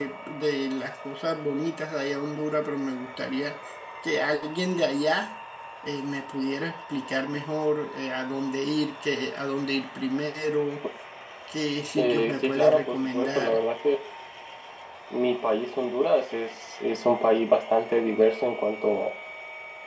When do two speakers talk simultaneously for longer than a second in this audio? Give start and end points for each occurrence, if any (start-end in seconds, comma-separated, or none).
12.0-13.6